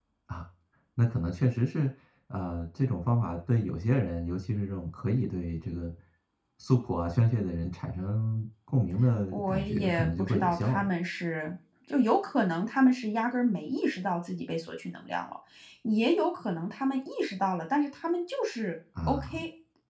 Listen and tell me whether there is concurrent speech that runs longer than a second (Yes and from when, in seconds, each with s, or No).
Yes, from 9.3 s